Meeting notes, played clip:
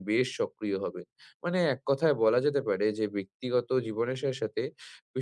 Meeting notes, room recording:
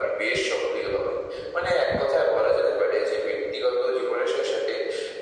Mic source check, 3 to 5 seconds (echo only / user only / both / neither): echo only